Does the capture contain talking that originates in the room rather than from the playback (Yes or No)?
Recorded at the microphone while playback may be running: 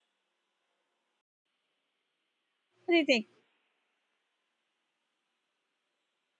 Yes